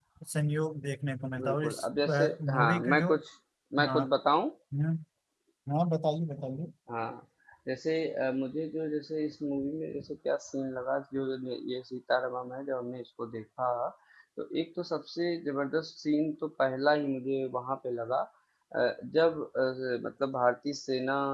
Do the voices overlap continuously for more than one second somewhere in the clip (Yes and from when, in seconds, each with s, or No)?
Yes, from 1.4 s